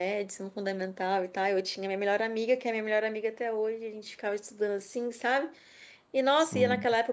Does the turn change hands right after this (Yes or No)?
No